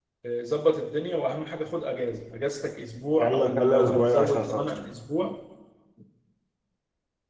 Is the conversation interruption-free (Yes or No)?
No